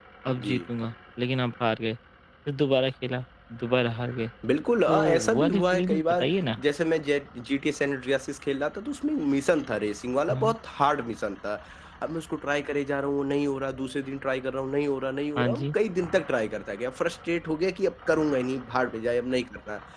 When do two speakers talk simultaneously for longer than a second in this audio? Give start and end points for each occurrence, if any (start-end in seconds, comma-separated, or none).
4.9-6.3